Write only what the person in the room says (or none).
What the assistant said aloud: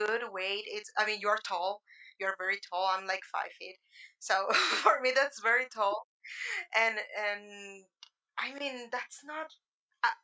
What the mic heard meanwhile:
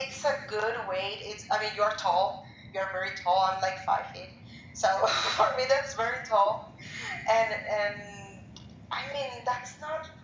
none